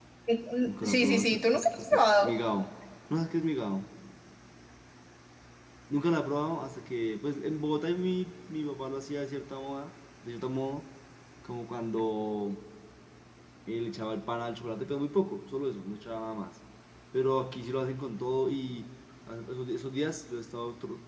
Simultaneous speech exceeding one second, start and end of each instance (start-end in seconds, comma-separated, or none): 0.7-2.3